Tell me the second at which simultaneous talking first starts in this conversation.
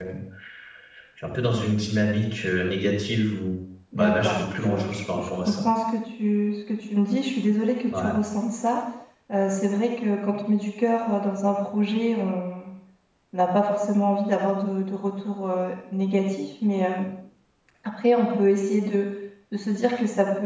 4.0 s

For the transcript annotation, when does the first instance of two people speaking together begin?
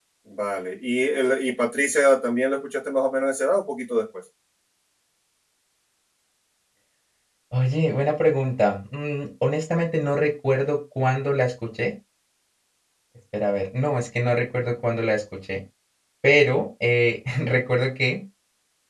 none

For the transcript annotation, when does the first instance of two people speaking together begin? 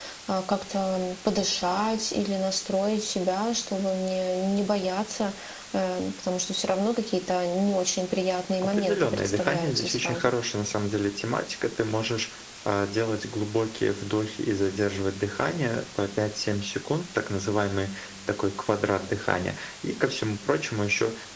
8.6 s

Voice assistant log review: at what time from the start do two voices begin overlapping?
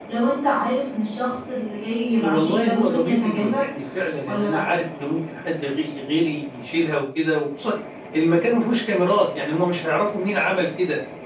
2.2 s

